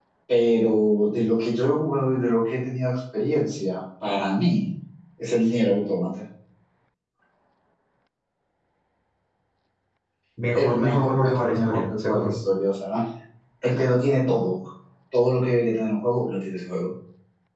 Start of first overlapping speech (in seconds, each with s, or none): 10.5 s